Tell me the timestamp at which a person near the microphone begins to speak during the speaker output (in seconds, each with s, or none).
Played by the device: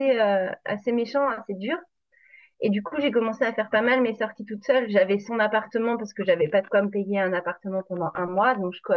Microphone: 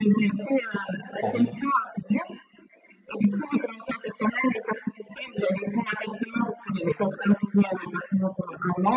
1.2 s